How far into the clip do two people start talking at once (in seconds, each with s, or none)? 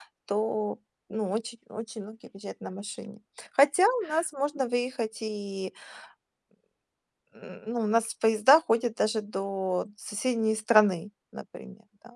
none